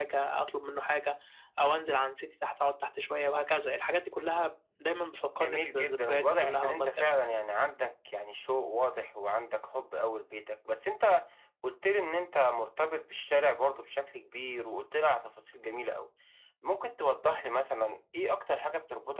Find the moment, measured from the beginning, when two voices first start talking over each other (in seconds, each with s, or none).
5.4 s